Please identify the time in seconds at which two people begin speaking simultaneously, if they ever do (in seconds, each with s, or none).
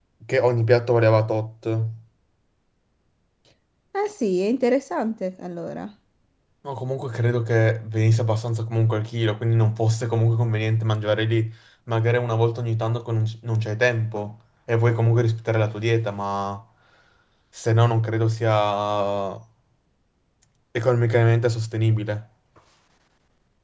none